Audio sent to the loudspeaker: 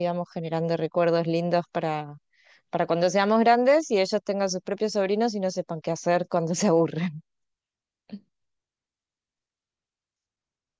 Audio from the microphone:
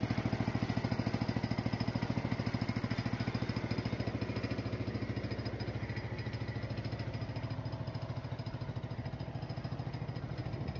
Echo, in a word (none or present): none